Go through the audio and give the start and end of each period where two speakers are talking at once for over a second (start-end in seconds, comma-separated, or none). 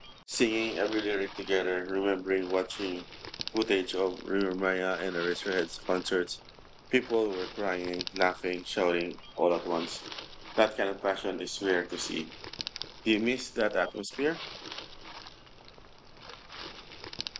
none